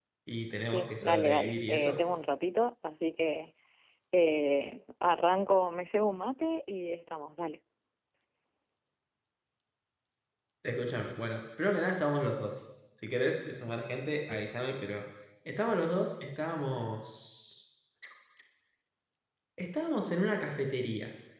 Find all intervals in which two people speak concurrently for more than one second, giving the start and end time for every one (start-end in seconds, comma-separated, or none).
0.7-2.0